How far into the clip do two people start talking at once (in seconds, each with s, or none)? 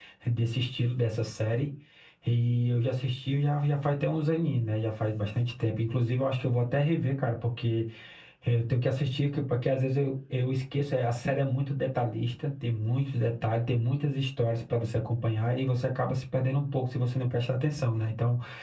none